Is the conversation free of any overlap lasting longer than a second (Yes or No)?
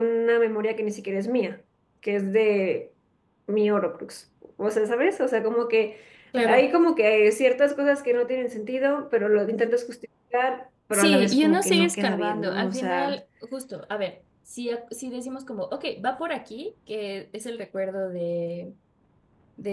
No